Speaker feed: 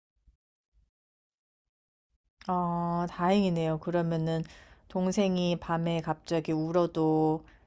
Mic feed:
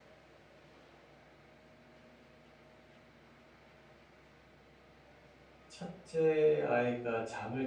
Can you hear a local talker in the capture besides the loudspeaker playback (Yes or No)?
Yes